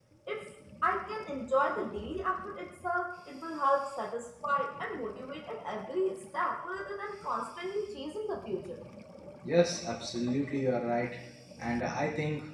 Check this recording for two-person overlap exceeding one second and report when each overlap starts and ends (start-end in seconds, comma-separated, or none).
none